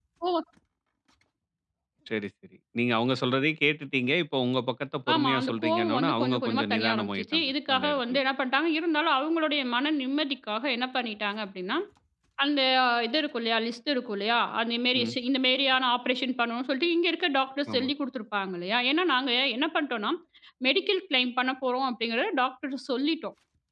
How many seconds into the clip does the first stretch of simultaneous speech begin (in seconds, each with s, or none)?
5.1 s